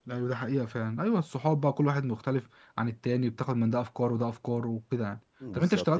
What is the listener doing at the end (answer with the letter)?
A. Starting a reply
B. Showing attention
B